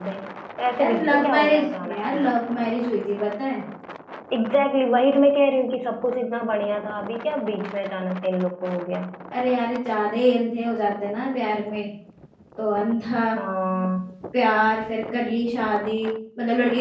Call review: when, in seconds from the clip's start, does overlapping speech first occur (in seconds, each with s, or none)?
0.8 s